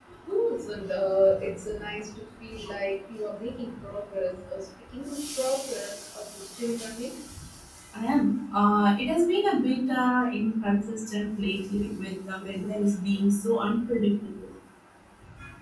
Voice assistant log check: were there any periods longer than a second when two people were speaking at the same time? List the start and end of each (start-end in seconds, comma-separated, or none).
none